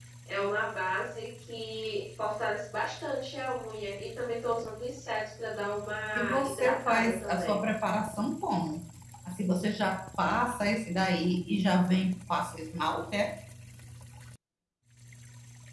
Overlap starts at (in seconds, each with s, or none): 6.2 s